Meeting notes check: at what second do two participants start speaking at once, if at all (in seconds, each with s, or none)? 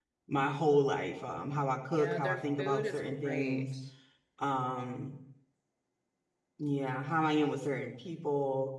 1.9 s